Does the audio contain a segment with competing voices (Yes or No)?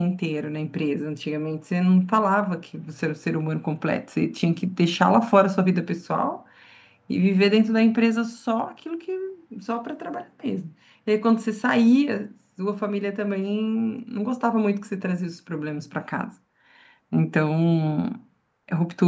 No